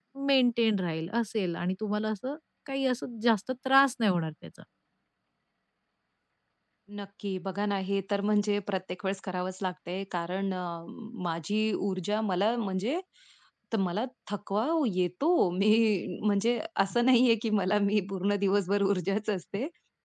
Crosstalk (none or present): none